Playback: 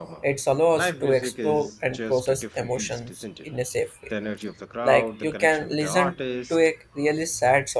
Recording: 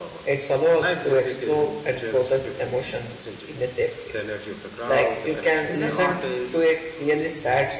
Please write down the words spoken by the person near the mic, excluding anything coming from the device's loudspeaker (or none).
Exactly.